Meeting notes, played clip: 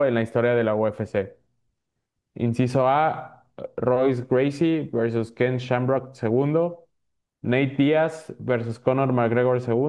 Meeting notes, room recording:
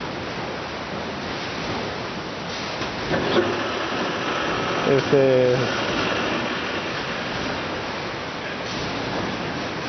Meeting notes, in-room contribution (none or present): present